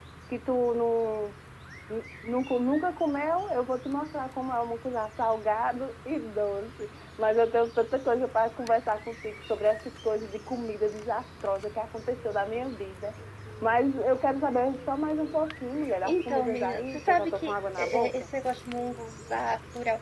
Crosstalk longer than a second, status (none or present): present